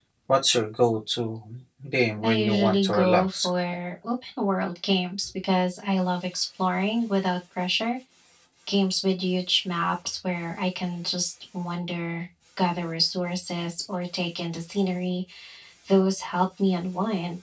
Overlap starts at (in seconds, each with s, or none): 2.2 s